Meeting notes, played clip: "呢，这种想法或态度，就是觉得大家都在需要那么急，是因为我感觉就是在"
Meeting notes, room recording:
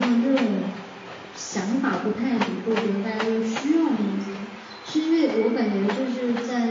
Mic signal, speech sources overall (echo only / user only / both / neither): echo only